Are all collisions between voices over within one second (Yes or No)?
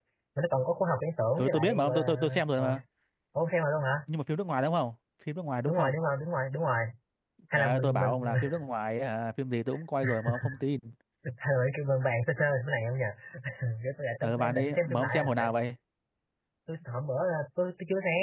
No